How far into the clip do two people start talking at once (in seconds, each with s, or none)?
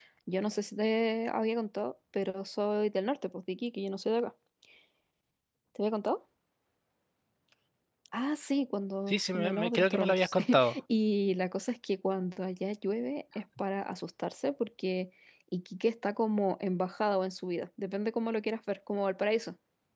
9.1 s